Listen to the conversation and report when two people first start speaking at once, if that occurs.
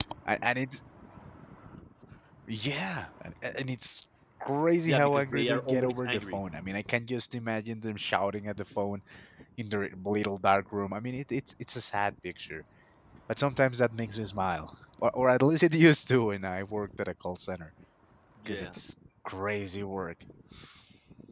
4.9 s

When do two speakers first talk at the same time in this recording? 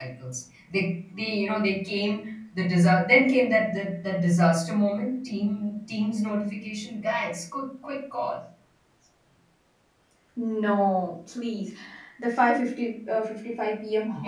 none

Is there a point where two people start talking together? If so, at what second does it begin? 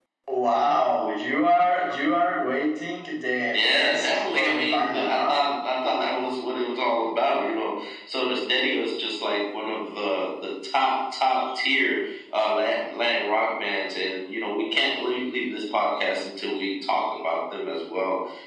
3.5 s

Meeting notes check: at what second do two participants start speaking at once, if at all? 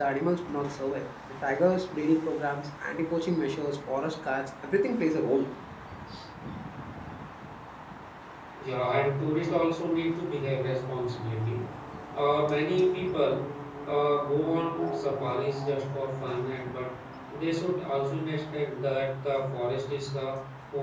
none

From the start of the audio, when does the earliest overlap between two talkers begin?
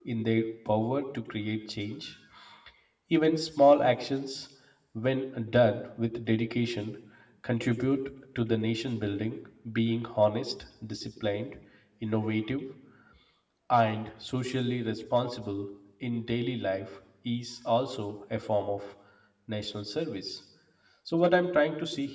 none

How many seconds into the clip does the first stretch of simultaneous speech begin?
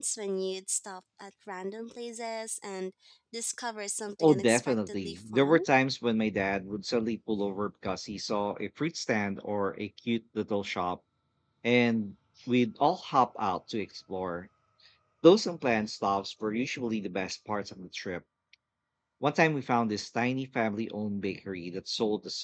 4.2 s

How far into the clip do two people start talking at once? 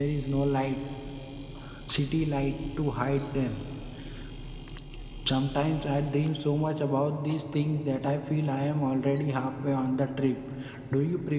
none

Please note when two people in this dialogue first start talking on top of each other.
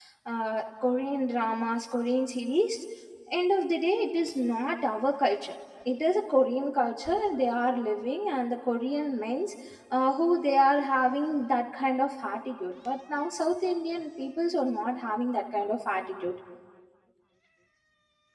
none

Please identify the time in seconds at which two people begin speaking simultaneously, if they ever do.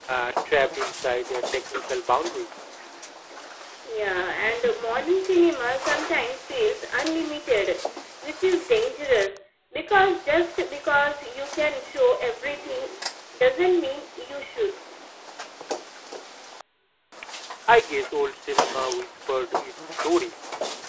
none

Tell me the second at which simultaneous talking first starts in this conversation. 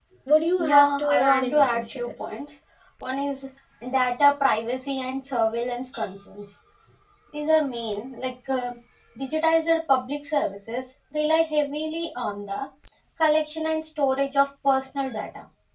0.6 s

